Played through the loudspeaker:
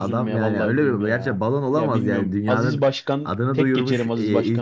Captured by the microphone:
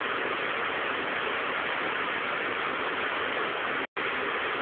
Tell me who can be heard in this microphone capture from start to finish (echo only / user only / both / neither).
neither